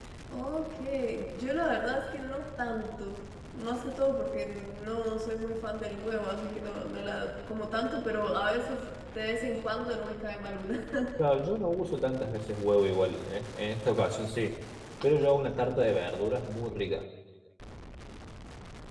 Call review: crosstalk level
none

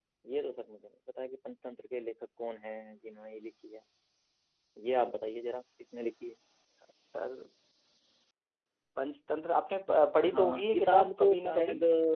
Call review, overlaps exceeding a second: present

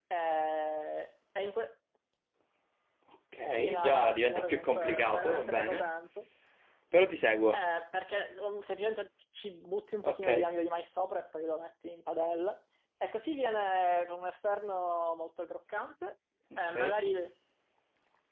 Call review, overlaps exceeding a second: present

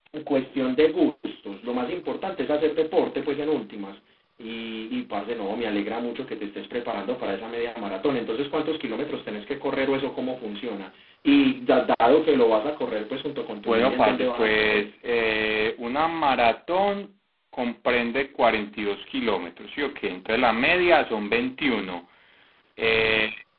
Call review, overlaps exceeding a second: present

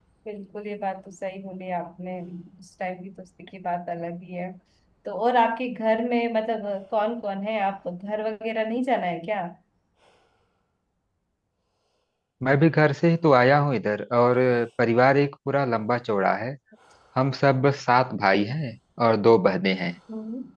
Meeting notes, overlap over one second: none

